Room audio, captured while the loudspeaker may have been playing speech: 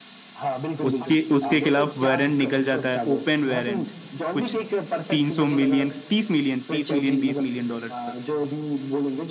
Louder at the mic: user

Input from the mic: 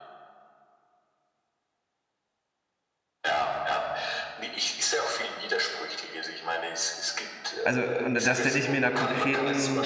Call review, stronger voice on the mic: user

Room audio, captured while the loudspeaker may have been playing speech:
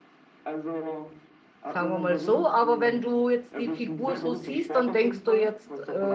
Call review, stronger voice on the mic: user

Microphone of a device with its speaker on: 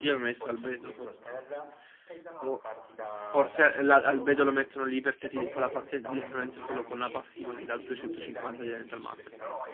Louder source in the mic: user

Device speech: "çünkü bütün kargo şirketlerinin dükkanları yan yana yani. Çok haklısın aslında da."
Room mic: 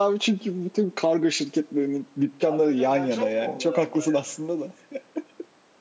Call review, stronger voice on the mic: echo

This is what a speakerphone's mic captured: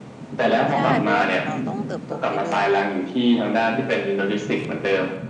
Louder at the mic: echo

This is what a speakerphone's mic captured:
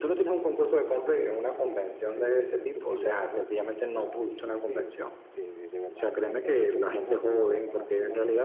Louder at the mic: echo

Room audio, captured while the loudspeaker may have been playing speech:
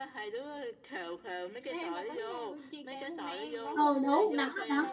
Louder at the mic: user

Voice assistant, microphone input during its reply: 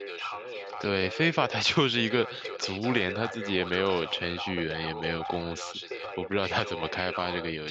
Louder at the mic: user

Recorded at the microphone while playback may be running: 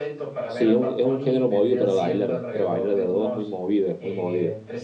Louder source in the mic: user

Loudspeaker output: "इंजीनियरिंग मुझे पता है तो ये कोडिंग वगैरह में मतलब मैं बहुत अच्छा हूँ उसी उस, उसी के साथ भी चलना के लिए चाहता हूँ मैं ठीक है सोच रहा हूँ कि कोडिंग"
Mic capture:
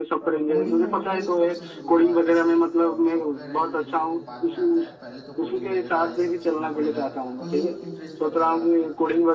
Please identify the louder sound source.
echo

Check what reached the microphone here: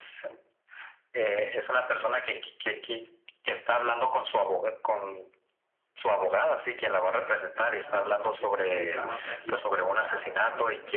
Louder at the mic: echo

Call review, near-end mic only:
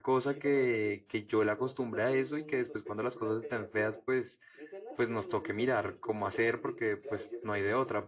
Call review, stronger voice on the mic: user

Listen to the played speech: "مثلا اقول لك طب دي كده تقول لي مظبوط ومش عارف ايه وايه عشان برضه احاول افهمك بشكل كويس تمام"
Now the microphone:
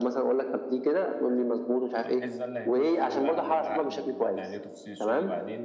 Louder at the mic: echo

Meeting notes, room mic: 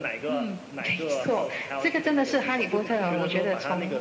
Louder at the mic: echo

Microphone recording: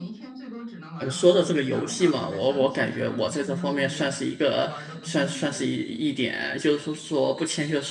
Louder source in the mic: user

